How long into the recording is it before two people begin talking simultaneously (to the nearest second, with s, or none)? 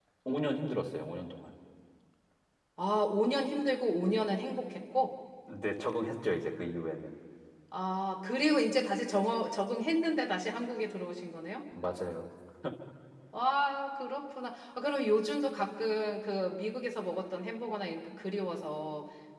none